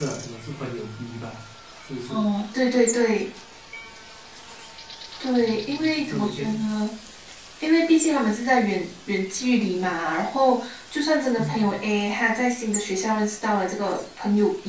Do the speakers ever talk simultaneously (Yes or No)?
Yes